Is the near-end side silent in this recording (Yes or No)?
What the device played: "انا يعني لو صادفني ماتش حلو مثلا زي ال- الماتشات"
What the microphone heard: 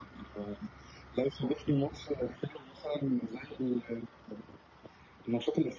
Yes